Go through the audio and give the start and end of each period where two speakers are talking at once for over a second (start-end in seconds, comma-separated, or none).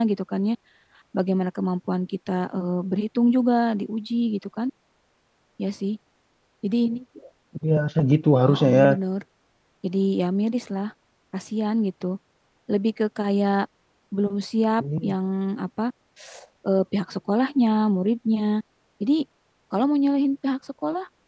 none